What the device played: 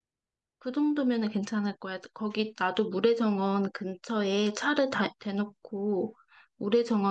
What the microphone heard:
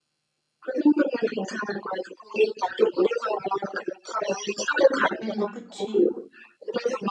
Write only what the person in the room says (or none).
응, 그치.